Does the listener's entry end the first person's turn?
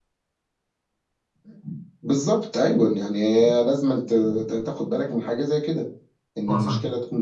No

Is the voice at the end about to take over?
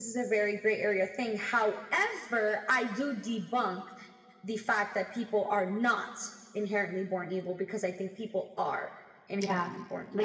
Yes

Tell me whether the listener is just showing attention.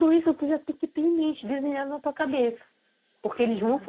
Yes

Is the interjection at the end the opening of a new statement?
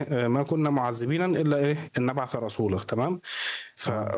No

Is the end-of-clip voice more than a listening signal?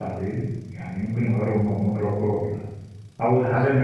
No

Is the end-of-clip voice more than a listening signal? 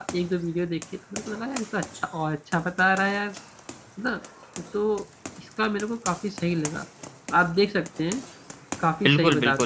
Yes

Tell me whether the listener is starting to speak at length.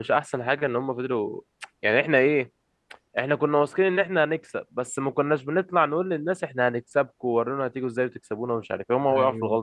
Yes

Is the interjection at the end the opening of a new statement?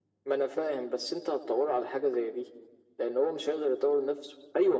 Yes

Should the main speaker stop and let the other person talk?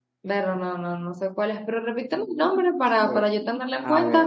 Yes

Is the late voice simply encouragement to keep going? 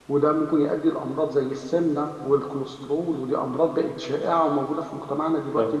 No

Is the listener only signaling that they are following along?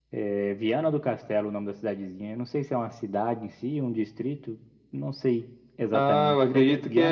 No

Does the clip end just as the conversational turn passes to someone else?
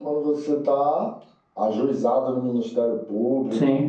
No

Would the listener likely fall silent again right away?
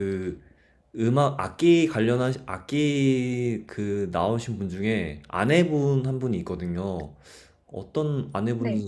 Yes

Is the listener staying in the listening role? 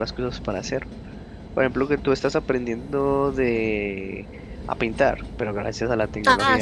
No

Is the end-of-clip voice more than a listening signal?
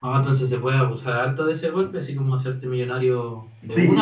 Yes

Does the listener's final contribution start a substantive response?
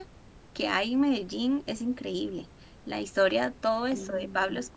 No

